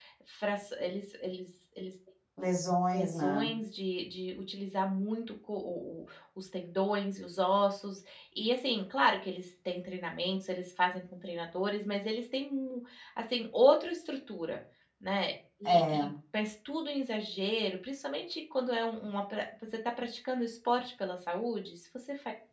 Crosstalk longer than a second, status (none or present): none